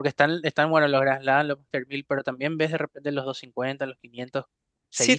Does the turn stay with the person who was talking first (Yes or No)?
No